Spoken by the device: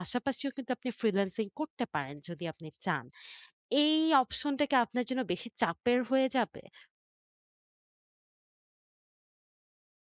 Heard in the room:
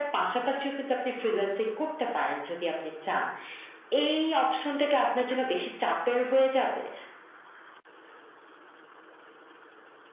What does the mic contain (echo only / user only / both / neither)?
echo only